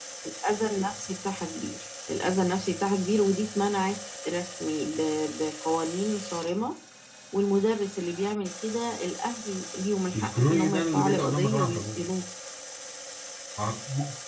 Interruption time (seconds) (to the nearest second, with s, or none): 10 s